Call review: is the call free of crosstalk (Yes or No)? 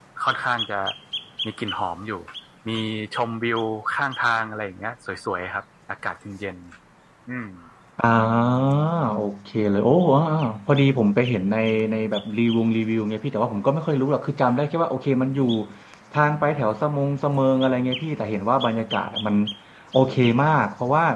Yes